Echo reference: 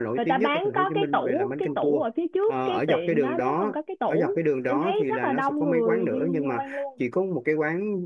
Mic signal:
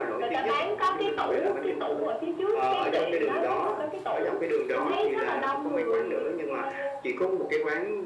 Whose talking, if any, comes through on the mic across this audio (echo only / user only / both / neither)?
echo only